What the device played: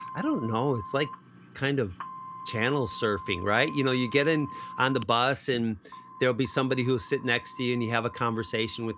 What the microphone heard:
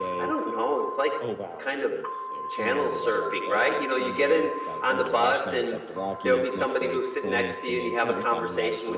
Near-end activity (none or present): present